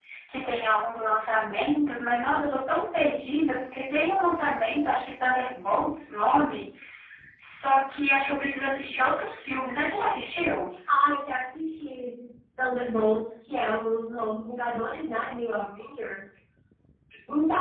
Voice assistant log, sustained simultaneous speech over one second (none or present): none